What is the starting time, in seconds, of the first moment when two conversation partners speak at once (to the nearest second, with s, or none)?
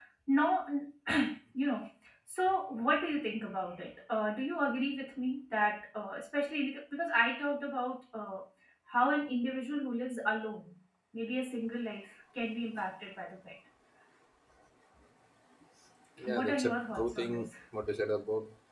16 s